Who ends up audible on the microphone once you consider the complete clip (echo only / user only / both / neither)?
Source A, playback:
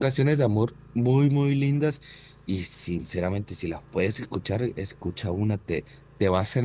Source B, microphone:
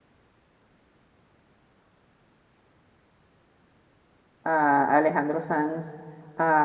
user only